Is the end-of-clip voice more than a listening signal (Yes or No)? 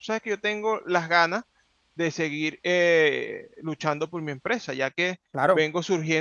No